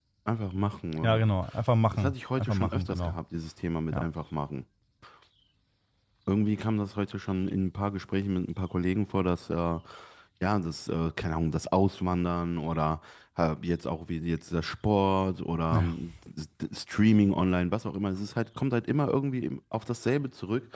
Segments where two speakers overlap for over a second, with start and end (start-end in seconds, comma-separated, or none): 1.9-3.2